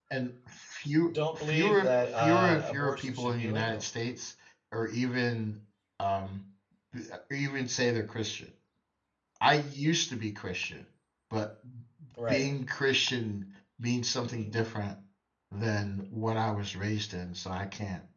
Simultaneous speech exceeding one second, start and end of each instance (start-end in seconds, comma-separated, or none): 1.1-3.8